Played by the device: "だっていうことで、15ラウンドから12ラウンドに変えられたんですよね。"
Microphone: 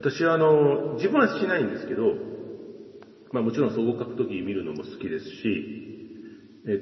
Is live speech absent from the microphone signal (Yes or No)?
No